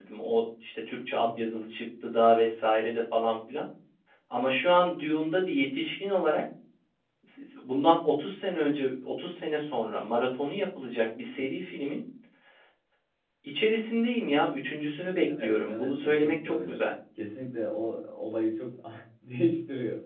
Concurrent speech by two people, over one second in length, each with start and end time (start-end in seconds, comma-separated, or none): 15.4-16.8